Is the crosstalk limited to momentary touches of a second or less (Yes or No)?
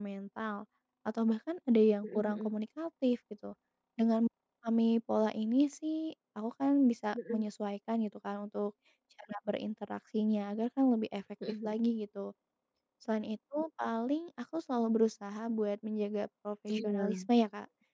Yes